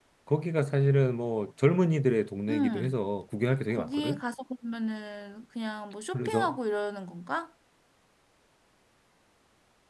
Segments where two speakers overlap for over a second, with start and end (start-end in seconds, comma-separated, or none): none